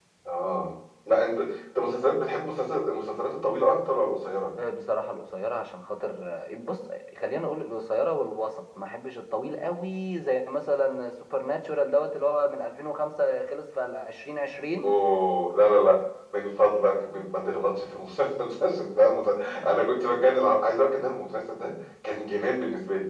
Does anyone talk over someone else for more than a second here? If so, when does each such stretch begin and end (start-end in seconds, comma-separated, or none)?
none